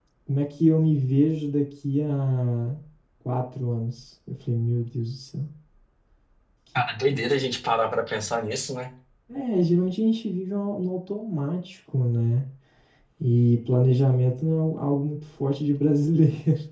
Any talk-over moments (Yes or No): No